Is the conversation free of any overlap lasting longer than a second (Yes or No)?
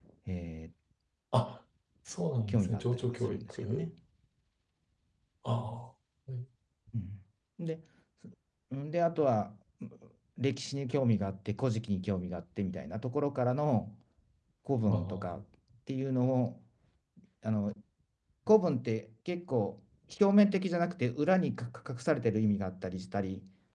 No